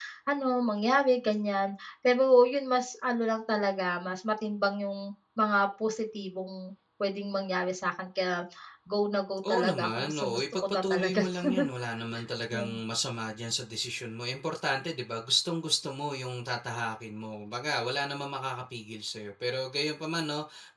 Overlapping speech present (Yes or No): Yes